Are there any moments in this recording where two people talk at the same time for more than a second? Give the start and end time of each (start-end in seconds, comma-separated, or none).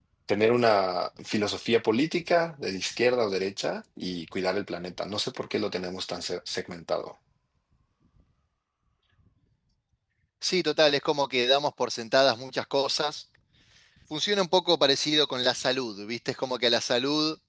none